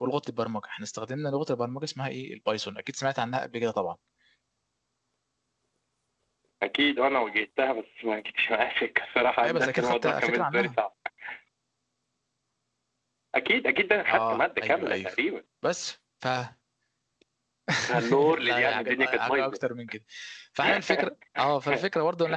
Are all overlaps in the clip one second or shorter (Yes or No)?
No